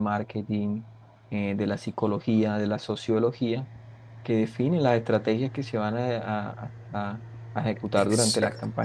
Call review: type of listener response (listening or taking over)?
listening